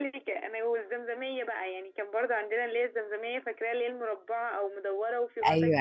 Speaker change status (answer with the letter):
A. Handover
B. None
A